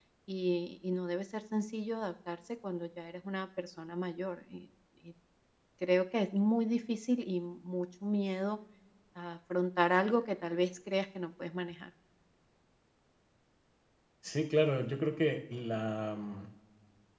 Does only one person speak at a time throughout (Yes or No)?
Yes